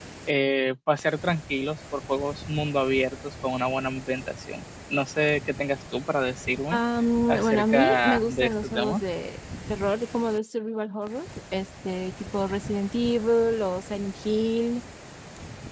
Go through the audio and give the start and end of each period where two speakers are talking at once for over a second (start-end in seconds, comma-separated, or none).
7.3-9.0